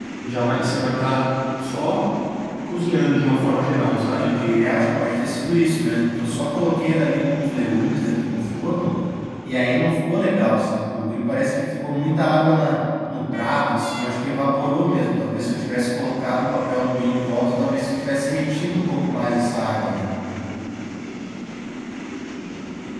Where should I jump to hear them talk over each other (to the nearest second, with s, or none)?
3 s